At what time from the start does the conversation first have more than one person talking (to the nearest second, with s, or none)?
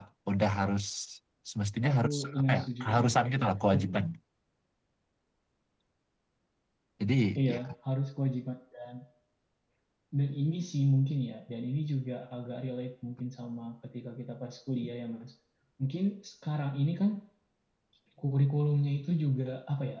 2 s